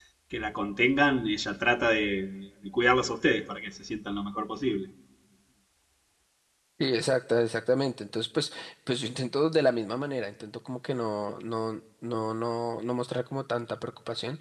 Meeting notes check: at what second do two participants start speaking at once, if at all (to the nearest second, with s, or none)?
none